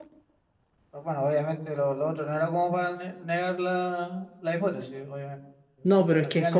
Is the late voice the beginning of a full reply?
Yes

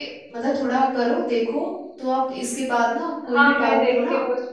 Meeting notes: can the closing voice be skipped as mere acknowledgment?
No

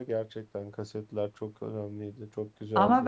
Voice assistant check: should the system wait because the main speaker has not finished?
No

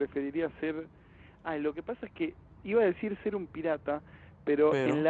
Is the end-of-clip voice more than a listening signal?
No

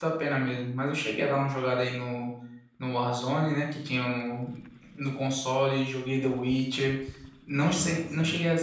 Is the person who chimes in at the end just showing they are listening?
Yes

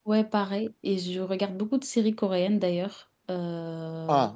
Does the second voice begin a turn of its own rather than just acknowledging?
Yes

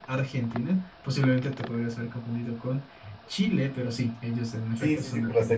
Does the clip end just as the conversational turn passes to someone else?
Yes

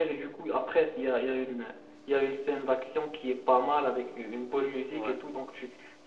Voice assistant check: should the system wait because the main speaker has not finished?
Yes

